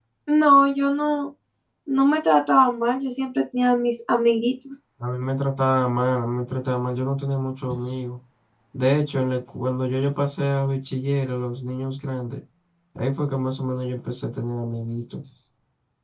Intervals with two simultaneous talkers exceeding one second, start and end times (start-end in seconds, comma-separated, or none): none